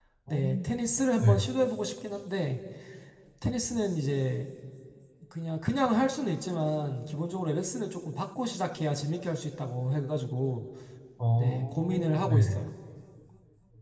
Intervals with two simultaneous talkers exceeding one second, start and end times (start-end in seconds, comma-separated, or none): 11.4-12.6